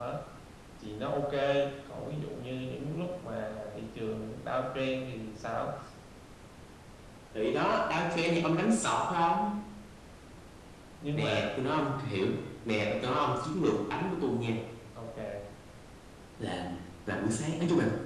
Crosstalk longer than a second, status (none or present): none